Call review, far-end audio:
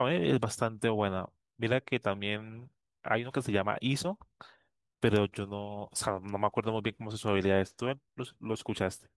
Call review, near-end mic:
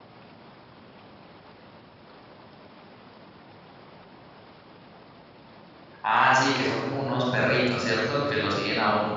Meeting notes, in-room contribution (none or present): present